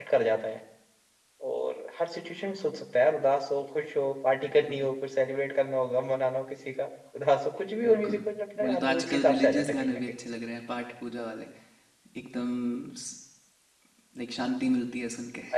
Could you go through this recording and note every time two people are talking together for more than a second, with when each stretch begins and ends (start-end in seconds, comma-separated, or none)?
8.6-10.0